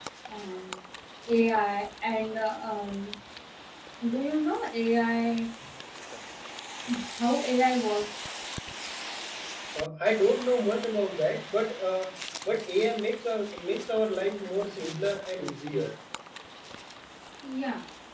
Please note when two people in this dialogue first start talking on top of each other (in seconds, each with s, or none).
none